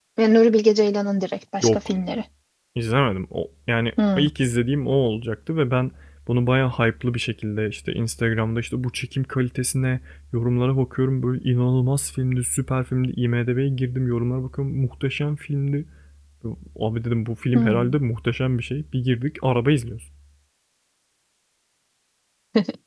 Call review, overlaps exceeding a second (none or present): none